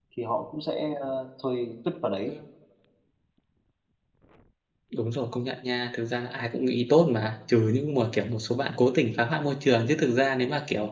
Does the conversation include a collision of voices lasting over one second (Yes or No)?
No